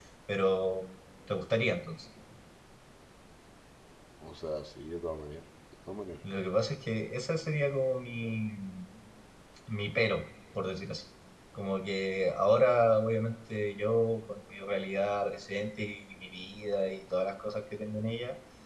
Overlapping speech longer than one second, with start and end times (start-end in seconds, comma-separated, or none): none